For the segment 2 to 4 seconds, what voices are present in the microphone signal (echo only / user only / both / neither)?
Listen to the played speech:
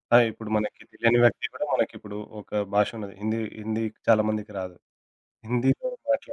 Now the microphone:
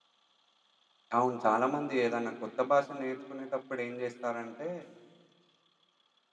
user only